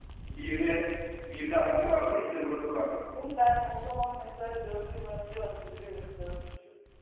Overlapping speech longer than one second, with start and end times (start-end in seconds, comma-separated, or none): none